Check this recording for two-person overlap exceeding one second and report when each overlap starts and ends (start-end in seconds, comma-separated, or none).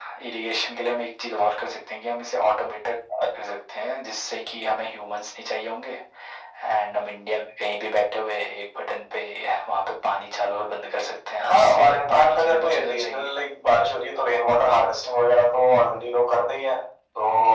11.4-13.3